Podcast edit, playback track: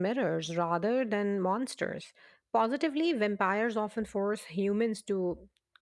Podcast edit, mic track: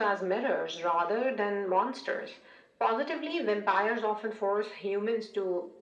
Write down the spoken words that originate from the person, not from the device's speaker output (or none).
none